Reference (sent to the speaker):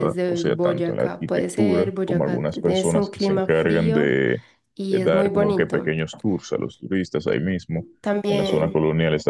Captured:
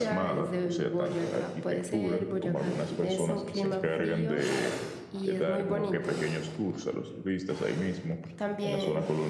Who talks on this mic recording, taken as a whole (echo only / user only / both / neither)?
echo only